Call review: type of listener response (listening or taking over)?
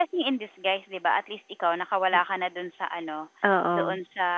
listening